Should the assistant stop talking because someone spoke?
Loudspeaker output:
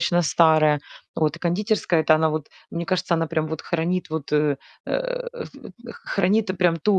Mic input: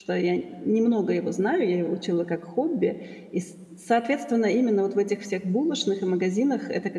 Yes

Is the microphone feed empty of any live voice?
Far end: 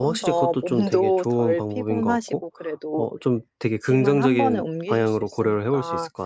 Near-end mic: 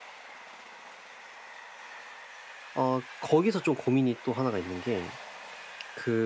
No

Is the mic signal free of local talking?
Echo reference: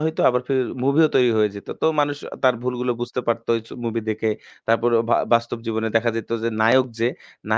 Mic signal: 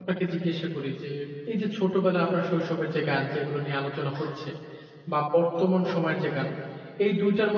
No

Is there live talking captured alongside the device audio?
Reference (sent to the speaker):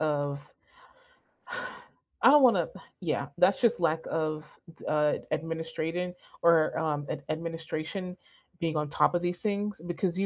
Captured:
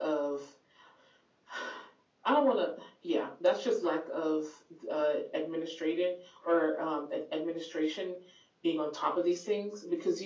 No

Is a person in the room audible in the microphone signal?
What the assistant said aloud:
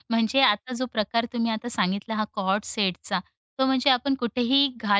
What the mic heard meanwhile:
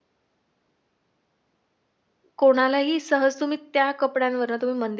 Yes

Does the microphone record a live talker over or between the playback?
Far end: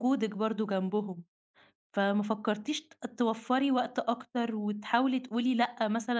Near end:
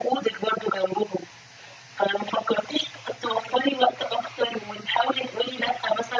No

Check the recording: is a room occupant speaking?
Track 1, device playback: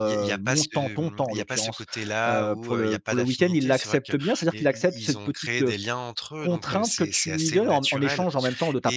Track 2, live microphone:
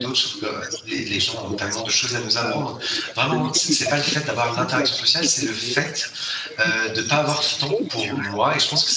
Yes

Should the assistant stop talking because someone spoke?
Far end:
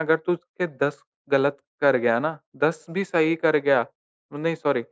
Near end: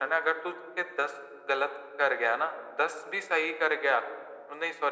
No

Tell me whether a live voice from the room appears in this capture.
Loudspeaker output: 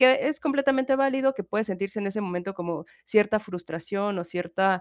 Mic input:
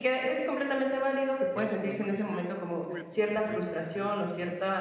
Yes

